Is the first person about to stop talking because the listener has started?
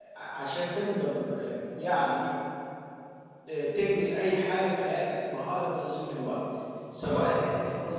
No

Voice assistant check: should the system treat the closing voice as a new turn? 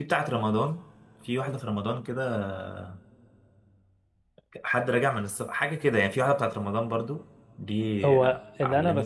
Yes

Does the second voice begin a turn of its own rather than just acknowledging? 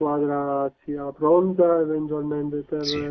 Yes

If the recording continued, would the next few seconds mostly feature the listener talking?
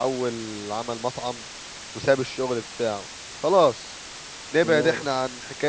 No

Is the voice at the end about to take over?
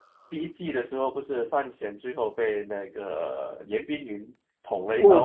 Yes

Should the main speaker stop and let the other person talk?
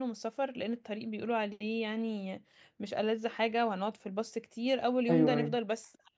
No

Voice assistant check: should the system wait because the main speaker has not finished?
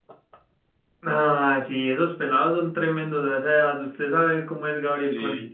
No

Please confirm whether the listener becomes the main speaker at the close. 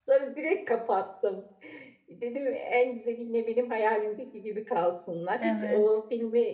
No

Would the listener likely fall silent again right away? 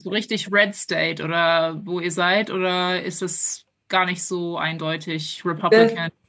No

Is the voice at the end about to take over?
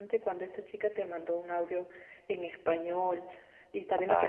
No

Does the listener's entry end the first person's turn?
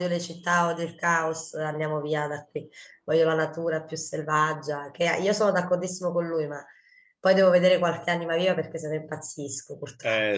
Yes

